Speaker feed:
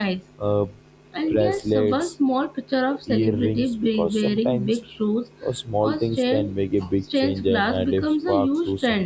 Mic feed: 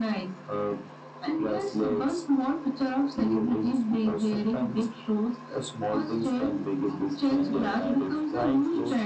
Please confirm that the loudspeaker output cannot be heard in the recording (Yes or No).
No